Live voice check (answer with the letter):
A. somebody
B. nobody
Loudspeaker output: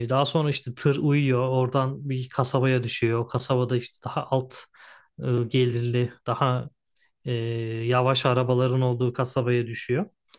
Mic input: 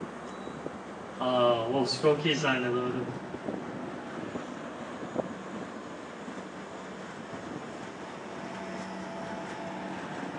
A